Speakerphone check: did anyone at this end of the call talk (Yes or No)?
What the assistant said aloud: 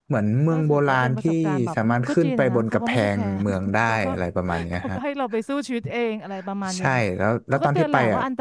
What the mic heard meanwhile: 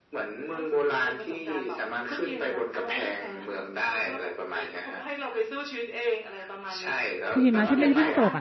Yes